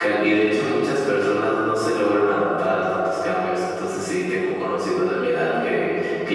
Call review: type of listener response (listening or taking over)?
listening